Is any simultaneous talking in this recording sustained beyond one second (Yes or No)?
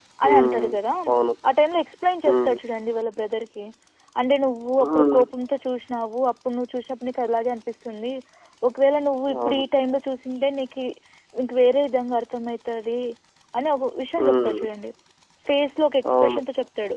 No